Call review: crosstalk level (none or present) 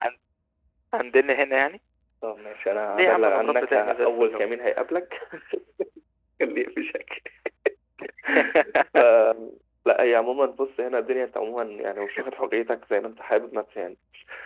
present